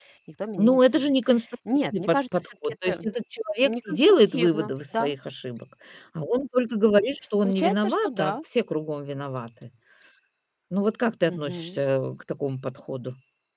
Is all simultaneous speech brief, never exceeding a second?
No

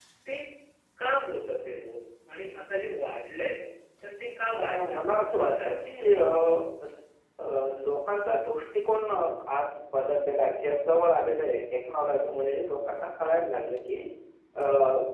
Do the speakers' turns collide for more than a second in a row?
Yes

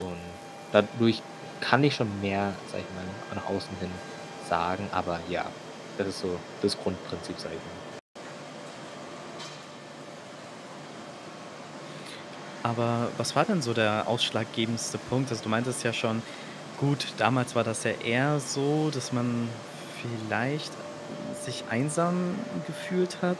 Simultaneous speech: No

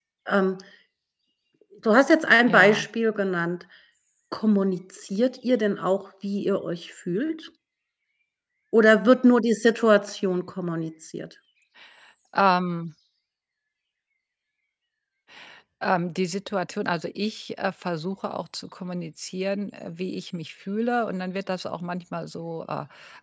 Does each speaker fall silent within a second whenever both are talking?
Yes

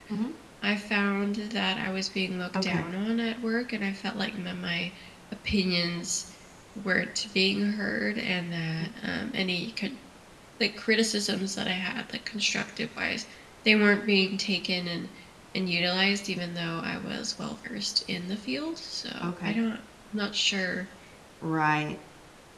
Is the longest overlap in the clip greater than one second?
No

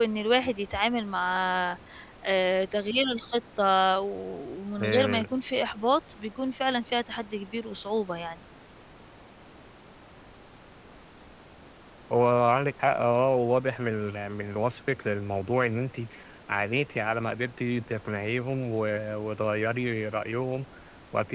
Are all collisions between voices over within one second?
Yes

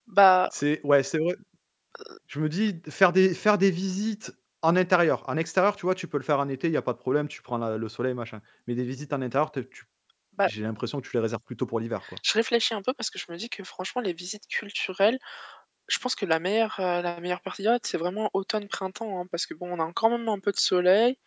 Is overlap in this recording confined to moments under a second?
Yes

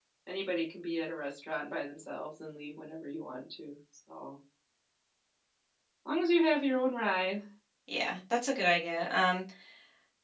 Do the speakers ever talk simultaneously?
No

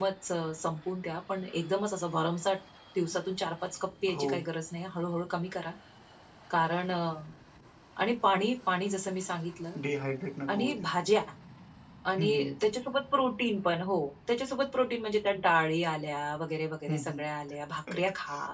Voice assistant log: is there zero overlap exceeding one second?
Yes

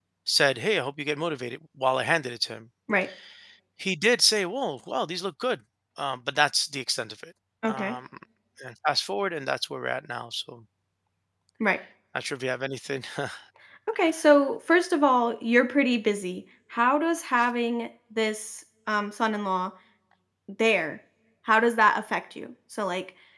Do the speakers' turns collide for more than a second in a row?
No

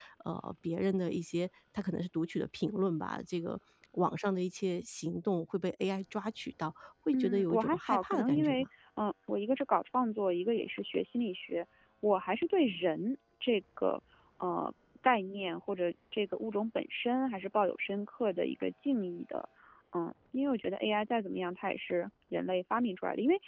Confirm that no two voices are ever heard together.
No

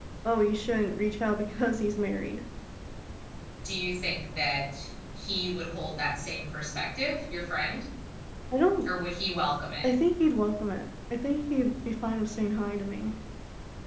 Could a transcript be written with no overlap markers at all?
Yes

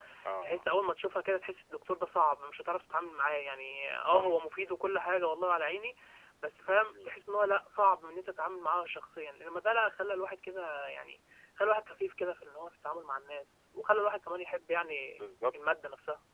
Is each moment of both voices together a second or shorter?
Yes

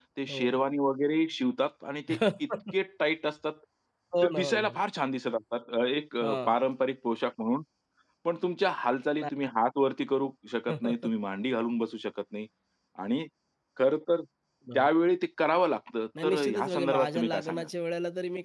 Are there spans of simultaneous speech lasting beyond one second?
Yes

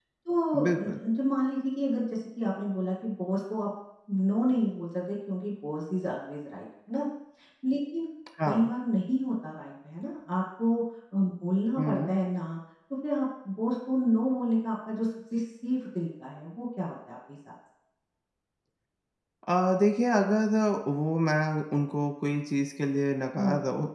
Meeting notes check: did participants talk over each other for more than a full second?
No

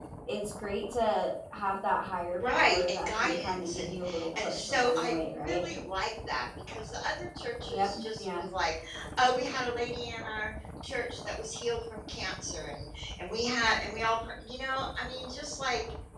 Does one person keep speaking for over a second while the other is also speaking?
Yes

